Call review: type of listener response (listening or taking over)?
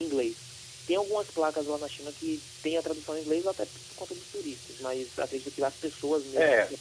taking over